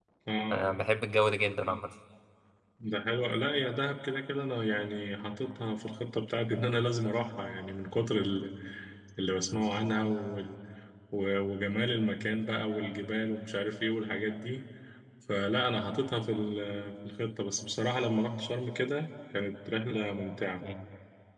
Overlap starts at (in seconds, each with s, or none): none